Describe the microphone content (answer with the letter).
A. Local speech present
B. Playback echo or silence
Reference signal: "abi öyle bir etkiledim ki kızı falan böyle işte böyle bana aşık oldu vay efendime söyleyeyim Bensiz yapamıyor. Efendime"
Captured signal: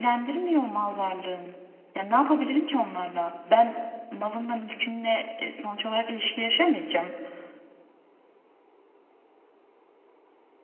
A